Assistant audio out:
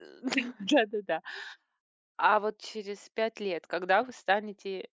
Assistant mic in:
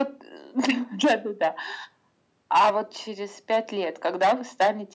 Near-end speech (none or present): none